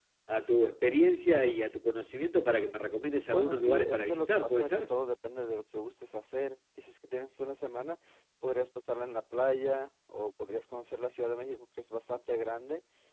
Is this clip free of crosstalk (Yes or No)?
No